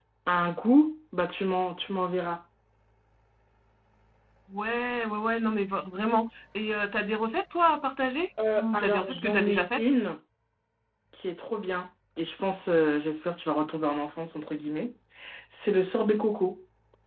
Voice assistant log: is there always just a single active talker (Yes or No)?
No